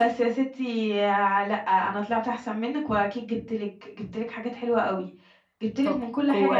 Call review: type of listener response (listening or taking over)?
listening